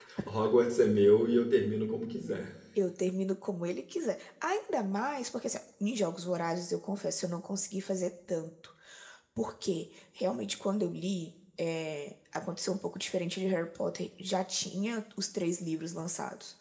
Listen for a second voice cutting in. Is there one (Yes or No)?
No